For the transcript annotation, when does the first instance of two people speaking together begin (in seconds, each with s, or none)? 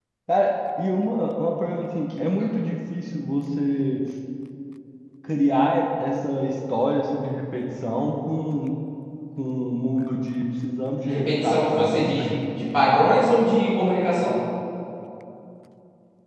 11.1 s